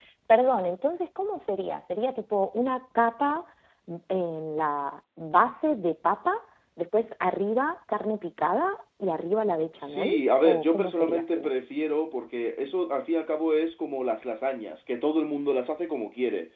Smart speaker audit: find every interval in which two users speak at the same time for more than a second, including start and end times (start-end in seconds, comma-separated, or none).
9.8-11.5